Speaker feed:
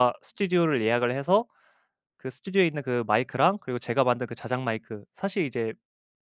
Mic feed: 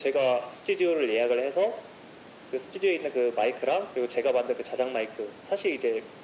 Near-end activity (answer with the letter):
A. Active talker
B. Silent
B